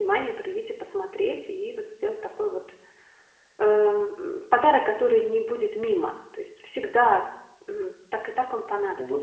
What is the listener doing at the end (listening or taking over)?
taking over